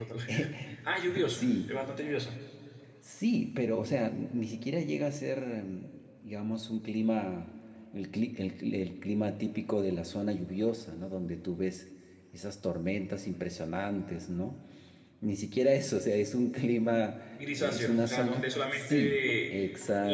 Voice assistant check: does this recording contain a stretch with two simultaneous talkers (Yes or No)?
Yes